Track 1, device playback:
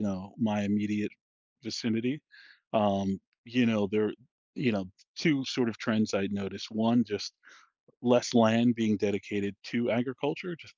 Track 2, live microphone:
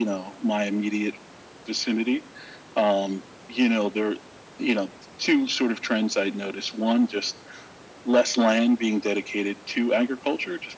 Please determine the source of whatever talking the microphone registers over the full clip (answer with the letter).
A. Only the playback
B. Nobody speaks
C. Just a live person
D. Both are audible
A